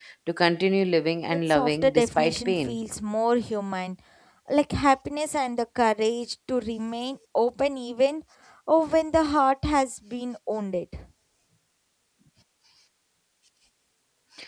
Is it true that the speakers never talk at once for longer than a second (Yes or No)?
No